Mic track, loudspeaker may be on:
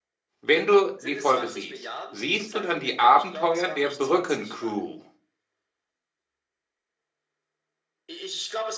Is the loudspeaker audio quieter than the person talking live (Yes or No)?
Yes